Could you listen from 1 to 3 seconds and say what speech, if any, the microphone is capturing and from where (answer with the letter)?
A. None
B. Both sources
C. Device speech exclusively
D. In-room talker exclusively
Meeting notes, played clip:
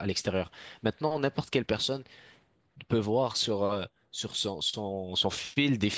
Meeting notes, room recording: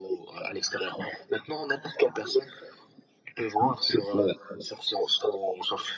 C